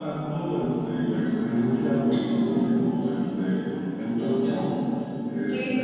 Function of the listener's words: listening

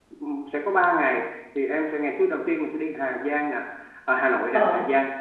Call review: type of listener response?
listening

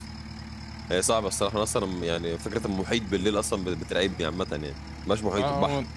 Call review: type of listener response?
taking over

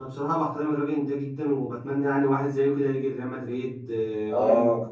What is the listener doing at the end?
taking over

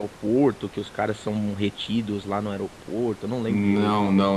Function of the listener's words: taking over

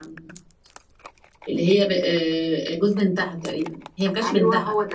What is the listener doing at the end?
taking over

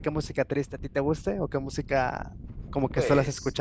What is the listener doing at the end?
taking over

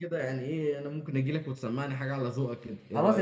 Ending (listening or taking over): taking over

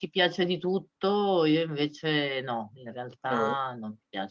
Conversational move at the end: listening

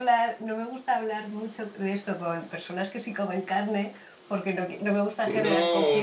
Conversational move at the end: taking over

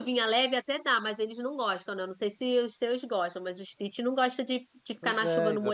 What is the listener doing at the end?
taking over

